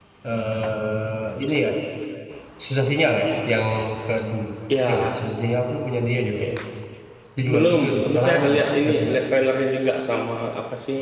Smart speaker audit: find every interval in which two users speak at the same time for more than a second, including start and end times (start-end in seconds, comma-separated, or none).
7.5-9.2